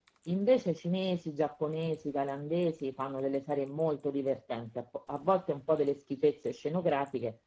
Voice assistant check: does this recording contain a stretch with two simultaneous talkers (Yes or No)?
No